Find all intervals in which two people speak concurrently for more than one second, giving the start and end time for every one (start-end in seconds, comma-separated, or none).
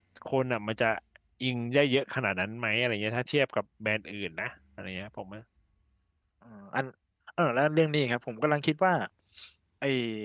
none